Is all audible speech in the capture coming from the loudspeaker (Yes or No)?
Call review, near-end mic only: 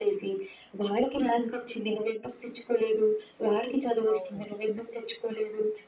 No